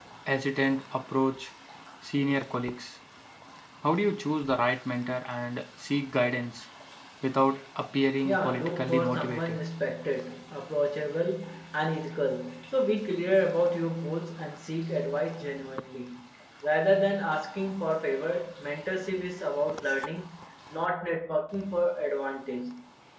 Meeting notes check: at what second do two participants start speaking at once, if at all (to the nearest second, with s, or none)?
8 s